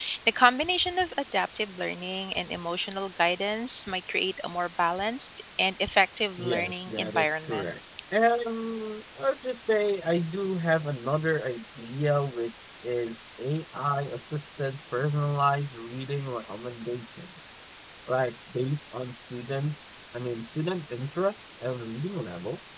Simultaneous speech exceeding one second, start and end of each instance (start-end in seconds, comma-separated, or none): 6.4-7.7